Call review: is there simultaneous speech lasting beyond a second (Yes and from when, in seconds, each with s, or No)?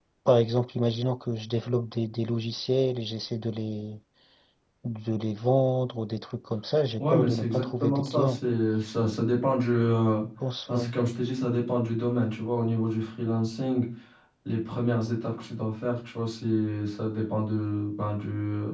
Yes, from 7.0 s